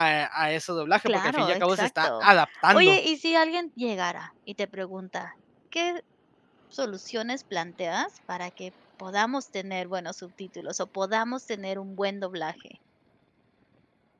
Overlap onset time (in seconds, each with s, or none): 1.1 s